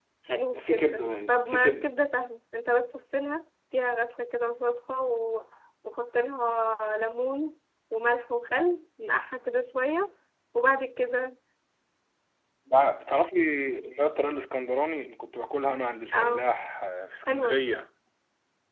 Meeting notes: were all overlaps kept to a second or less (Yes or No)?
No